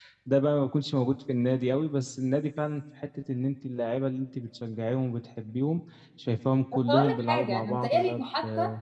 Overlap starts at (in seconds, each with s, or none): 6.9 s